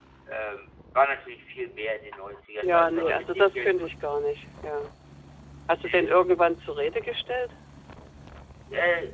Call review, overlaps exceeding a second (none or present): present